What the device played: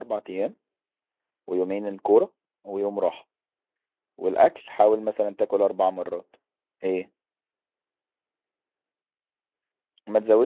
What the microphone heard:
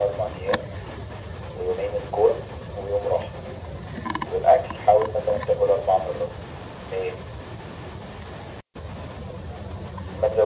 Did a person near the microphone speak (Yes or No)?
No